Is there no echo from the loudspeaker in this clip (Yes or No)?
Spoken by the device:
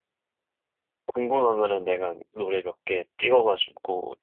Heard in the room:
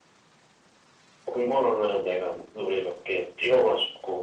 No